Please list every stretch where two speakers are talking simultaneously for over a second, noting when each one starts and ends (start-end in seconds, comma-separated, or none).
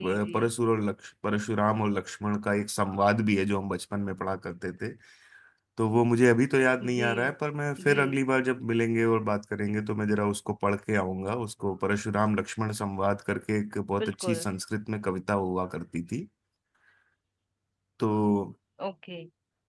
none